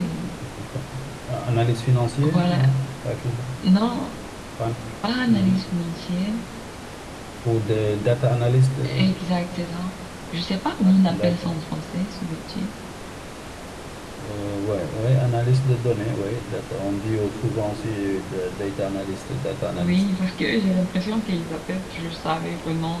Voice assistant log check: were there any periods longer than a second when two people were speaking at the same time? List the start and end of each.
none

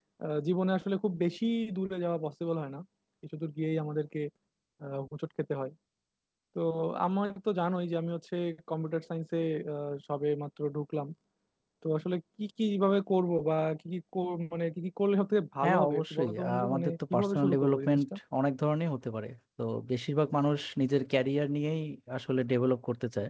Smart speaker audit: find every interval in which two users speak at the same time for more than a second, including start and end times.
15.6-18.0

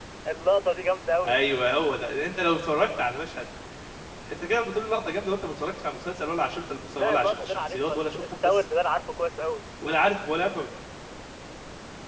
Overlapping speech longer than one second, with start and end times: 7.0-8.6

